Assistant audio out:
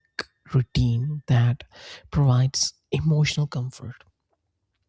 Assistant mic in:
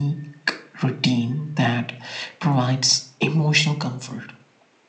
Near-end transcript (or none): none